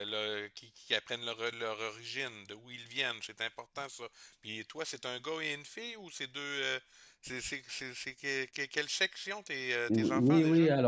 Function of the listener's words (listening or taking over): taking over